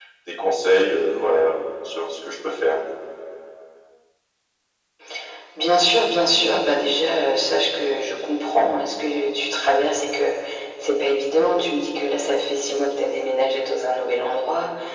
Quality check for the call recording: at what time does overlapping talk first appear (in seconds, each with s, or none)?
none